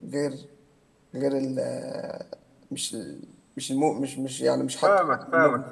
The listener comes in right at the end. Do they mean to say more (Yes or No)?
Yes